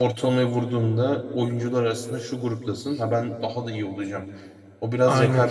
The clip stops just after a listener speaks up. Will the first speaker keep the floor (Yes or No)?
Yes